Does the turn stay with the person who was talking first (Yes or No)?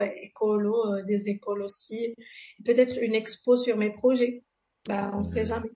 No